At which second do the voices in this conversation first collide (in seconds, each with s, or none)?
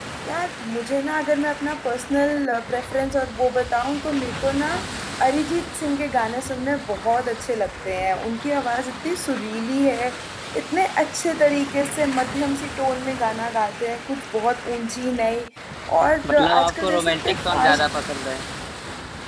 16.3 s